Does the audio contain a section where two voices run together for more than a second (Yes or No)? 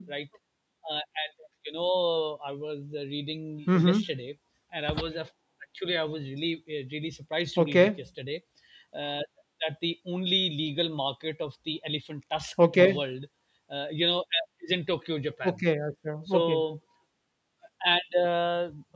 No